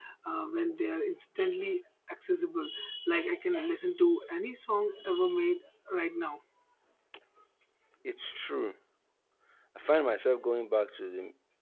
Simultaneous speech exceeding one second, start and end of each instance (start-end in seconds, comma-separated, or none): none